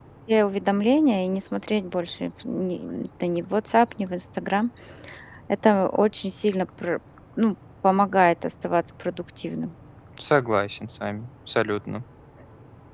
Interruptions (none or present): none